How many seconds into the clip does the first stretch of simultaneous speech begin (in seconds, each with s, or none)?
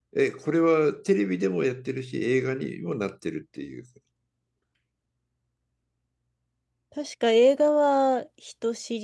none